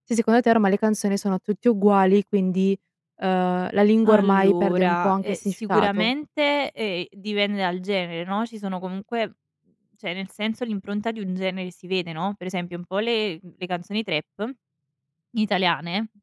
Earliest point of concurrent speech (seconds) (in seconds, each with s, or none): 4.0 s